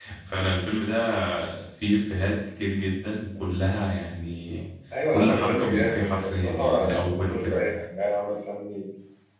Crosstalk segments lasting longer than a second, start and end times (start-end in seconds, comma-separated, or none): 5.1-7.6